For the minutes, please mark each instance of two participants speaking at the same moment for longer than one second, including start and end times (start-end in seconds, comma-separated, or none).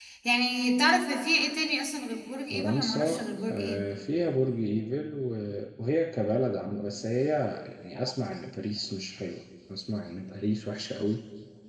2.5-3.9